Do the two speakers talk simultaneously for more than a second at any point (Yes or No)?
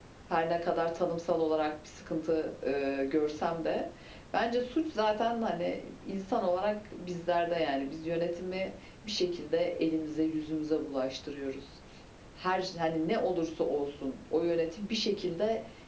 No